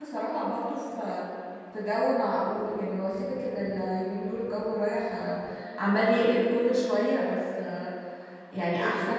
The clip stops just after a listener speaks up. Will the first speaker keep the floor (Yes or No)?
Yes